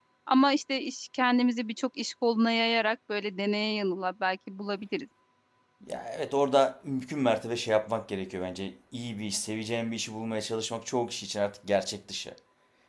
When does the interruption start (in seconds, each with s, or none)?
none